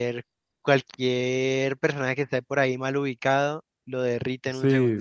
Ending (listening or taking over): taking over